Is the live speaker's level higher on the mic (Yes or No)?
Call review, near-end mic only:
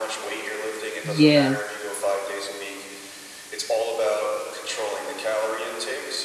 Yes